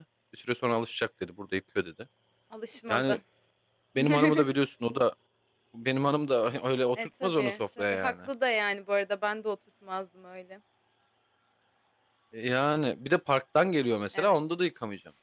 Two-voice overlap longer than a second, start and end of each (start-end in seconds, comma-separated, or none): 7.0-8.3